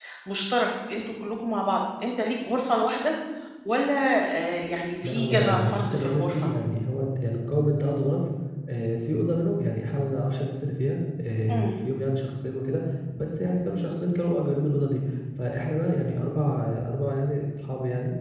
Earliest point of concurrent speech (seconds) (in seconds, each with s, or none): 5.0 s